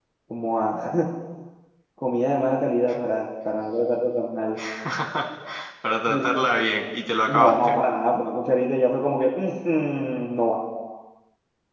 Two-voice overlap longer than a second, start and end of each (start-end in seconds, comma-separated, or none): none